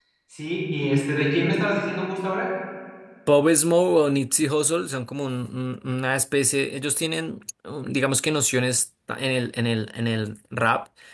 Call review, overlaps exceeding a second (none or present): none